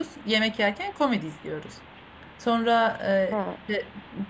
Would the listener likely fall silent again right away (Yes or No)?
Yes